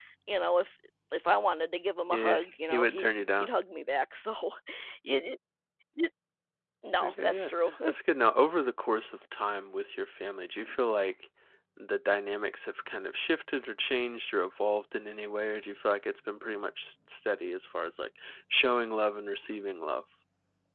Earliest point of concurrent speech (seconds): 2.1 s

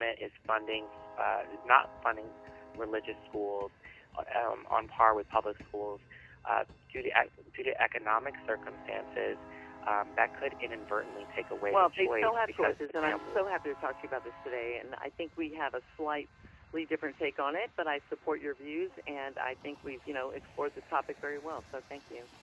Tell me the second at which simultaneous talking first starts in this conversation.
11.7 s

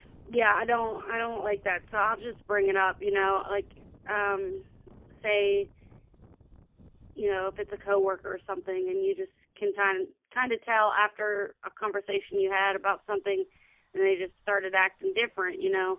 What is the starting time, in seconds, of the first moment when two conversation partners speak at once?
none

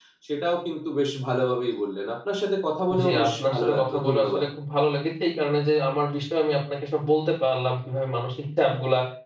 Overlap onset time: 2.9 s

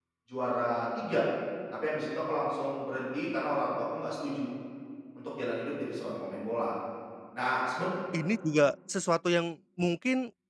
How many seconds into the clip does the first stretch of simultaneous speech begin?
none

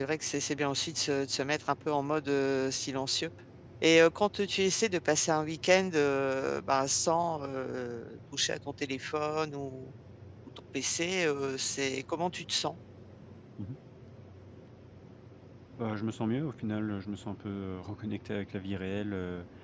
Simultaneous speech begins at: none

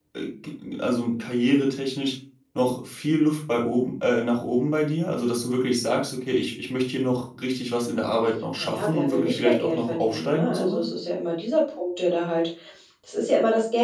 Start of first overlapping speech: 8.6 s

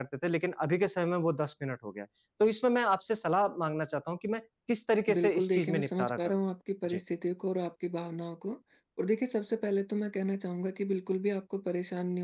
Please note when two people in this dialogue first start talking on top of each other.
5.1 s

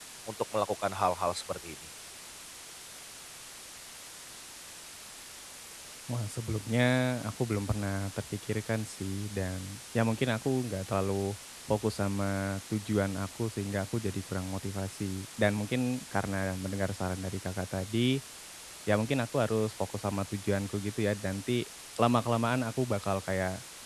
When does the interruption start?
none

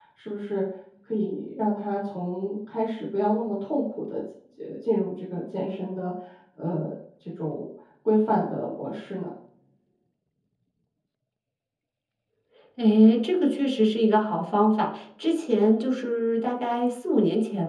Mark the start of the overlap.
none

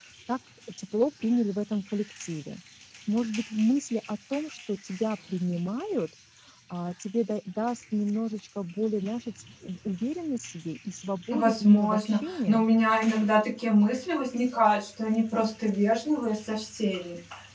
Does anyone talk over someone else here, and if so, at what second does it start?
11.3 s

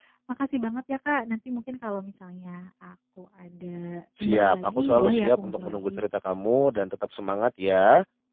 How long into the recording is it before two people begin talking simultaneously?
4.2 s

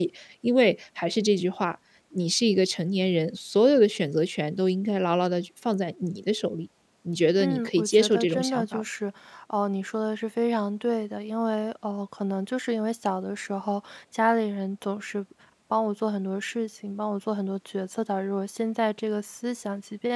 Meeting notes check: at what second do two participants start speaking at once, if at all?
7.4 s

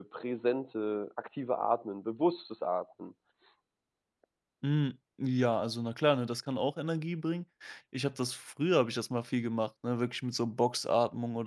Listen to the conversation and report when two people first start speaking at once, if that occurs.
none

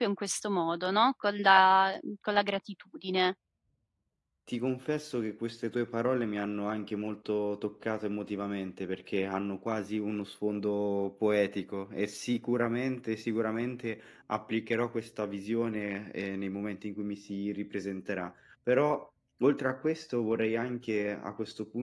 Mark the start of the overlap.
none

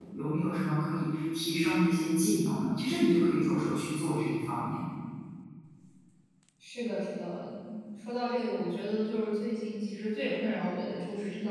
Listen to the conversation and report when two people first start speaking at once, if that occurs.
none

